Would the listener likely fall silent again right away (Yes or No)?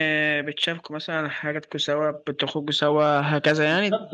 No